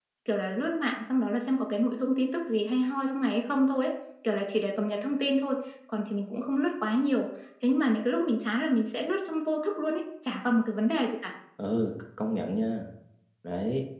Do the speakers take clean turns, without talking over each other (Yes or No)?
Yes